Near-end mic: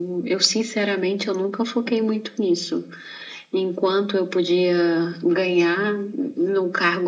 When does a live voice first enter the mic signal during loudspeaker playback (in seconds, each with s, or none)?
none